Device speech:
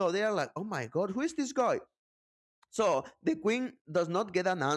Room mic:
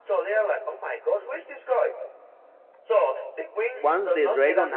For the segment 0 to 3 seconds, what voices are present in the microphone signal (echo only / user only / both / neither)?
echo only